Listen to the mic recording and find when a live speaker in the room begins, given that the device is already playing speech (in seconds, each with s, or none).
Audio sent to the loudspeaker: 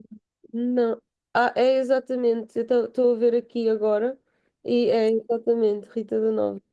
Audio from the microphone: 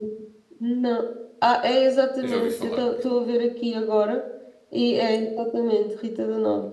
2.2 s